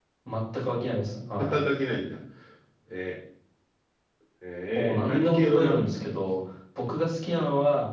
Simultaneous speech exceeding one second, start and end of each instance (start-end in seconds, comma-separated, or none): 4.8-6.2